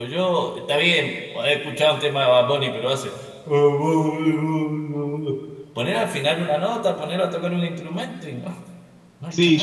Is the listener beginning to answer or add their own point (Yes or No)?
Yes